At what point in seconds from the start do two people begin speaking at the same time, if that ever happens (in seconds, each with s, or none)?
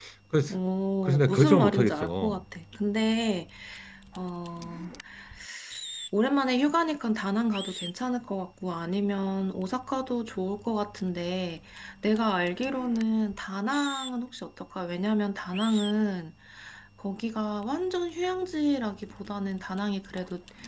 1.0 s